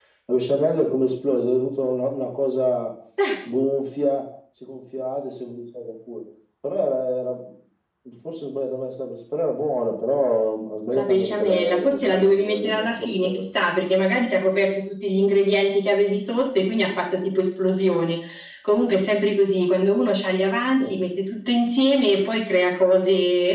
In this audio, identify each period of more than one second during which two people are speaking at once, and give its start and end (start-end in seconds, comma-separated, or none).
10.9-13.5